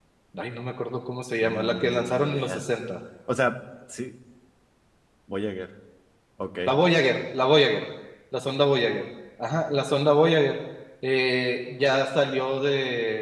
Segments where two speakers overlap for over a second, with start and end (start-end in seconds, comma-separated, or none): 1.4-2.6